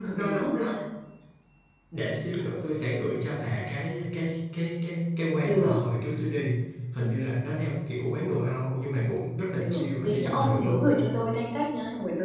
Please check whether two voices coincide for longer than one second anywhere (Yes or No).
Yes